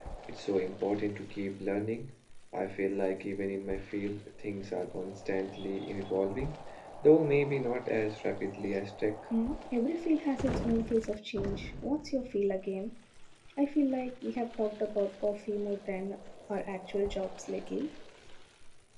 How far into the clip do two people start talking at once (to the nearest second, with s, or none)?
none